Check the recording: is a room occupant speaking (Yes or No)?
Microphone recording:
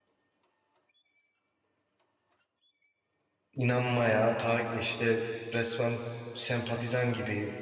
Yes